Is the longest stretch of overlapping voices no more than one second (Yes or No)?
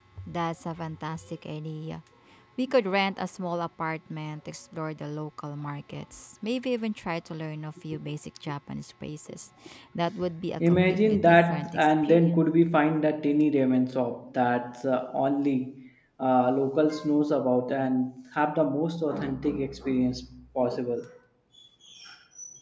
No